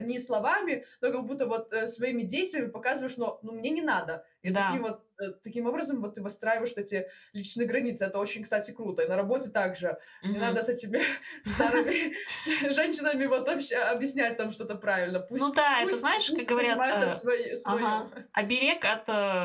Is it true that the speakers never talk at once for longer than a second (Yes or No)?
No